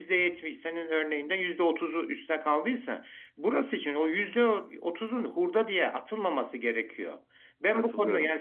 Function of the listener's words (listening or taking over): listening